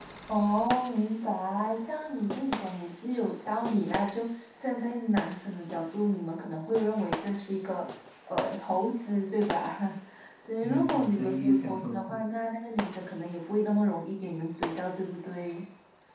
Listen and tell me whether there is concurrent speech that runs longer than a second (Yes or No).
Yes